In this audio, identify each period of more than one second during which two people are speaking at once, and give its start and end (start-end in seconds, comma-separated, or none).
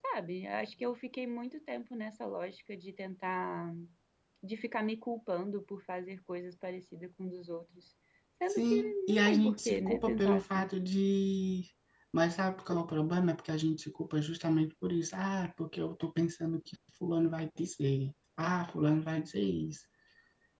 8.5-10.7